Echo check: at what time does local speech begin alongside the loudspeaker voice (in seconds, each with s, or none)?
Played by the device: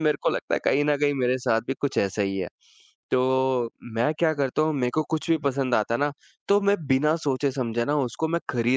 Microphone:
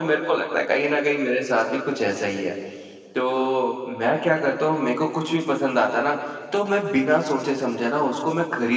none